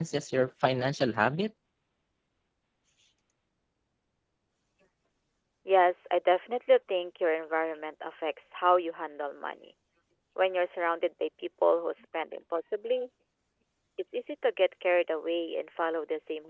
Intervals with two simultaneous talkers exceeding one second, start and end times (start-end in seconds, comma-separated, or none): none